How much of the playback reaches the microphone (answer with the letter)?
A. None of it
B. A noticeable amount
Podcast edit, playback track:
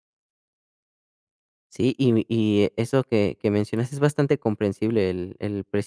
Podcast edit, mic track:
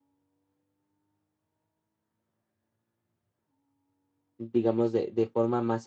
A